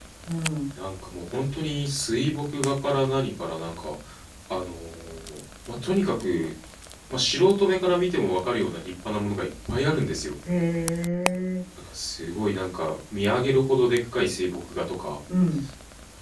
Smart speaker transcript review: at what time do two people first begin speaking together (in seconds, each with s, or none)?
none